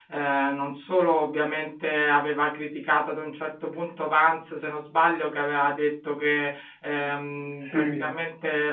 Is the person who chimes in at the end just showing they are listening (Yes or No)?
Yes